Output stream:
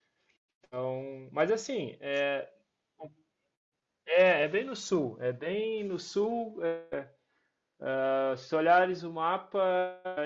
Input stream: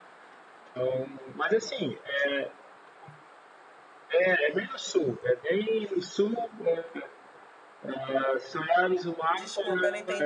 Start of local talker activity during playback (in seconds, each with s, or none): 9.3 s